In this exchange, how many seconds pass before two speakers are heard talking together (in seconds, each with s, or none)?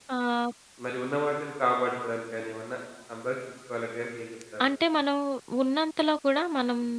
none